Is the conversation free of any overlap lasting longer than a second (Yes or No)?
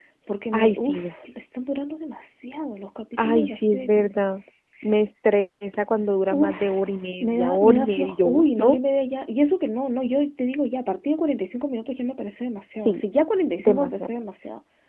No